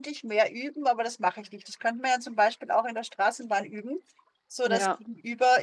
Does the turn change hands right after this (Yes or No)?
No